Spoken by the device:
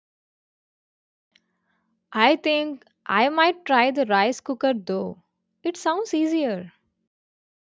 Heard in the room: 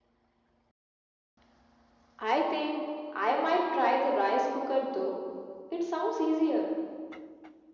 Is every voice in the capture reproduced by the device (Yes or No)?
Yes